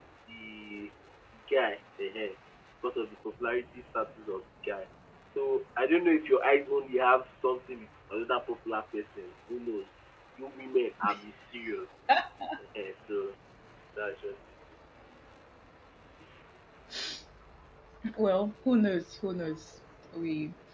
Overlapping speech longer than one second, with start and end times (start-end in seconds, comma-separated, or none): none